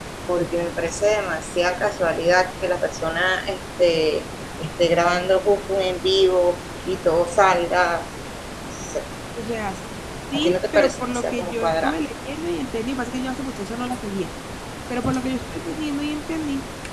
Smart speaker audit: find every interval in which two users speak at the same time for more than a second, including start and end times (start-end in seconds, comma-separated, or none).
10.3-12.0